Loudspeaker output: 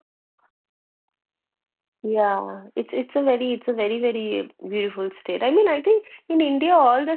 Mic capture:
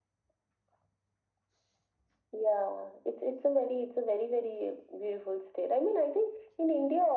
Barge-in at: none

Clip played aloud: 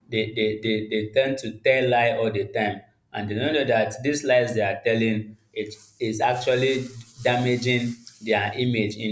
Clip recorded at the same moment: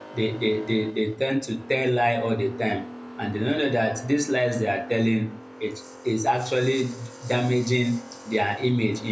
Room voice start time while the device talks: none

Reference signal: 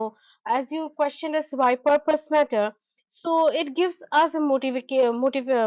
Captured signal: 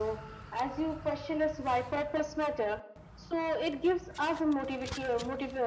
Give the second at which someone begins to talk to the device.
none

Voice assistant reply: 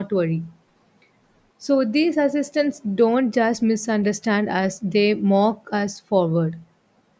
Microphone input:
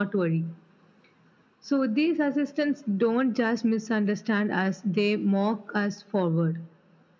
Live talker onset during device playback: none

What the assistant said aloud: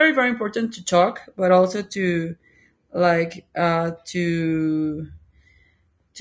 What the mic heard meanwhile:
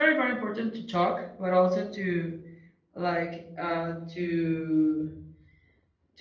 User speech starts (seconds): none

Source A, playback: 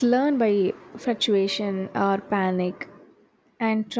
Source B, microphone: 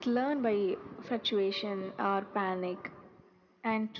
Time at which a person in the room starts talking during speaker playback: none

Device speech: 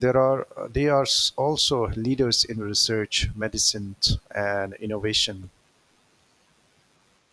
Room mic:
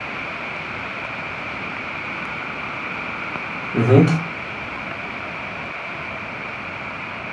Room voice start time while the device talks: 4 s

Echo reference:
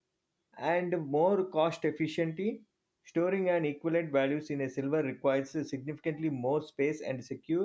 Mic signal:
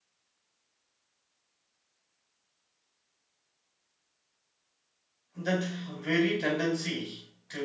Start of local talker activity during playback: 5 s

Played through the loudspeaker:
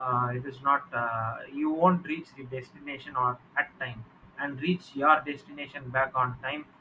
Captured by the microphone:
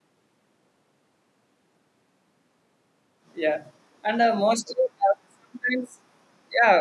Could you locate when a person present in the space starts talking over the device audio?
3 s

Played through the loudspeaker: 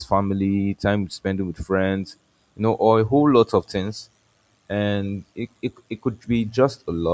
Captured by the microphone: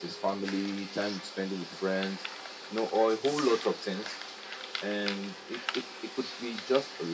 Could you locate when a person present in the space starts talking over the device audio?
none

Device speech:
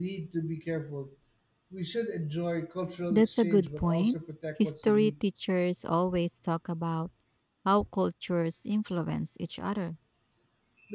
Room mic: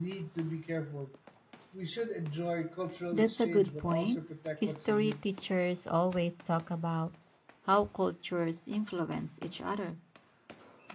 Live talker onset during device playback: none

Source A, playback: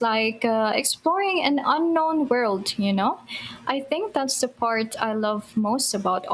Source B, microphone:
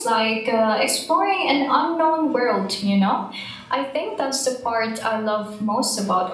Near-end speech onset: none

